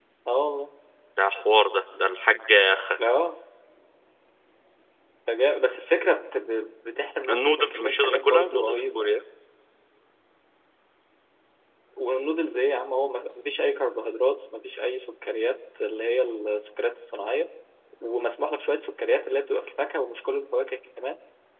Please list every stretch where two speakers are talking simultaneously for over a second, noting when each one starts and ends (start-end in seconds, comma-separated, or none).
7.3-9.1